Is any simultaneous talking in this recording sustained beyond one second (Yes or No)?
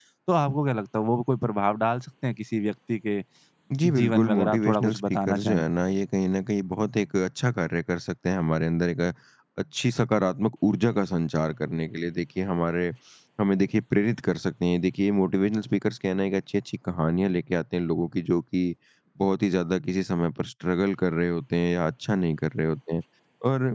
Yes